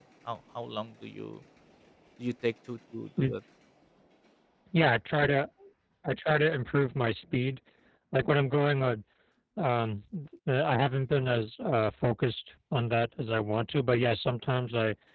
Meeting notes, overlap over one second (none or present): none